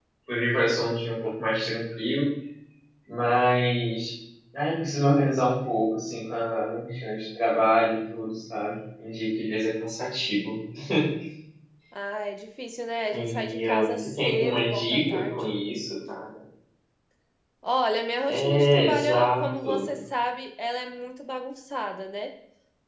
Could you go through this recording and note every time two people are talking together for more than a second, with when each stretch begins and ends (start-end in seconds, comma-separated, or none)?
13.1-15.4, 18.3-19.9